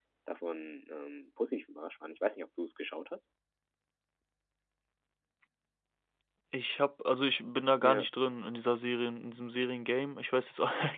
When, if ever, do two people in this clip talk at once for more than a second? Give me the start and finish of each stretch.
none

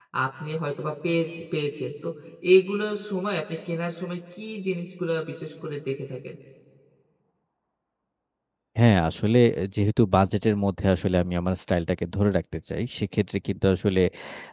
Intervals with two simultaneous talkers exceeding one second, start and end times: none

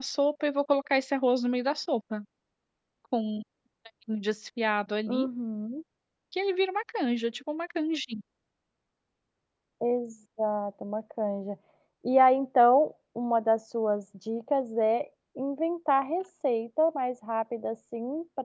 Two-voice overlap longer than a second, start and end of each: none

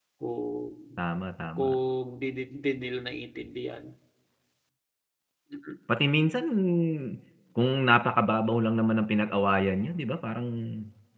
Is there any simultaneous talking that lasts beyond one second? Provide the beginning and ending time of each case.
none

